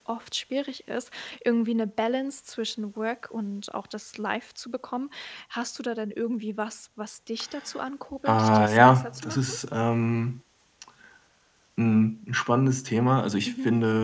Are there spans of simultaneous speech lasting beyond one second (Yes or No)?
Yes